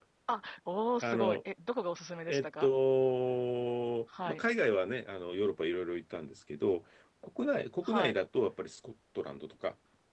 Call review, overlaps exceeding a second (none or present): none